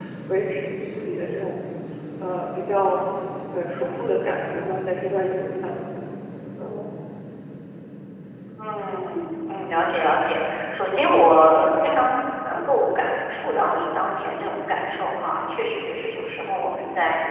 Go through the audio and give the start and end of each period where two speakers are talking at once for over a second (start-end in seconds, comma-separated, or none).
none